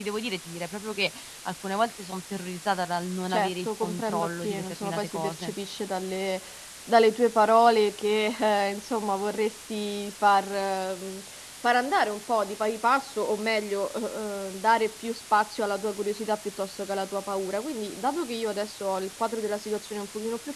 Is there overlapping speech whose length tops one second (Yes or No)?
Yes